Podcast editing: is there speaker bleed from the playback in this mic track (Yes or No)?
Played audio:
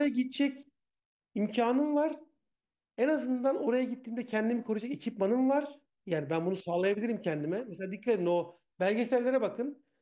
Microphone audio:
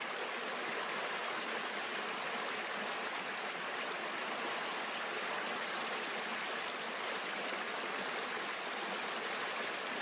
No